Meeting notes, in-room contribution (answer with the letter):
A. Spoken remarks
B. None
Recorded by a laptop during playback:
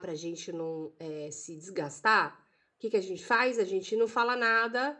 B